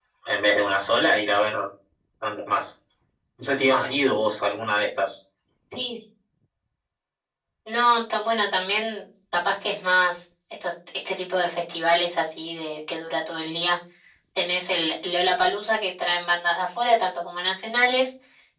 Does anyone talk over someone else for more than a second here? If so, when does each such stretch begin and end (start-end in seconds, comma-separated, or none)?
none